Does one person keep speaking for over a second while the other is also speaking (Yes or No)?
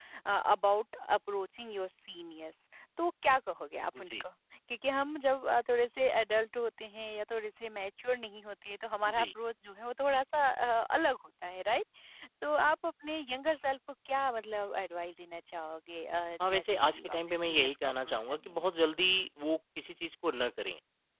Yes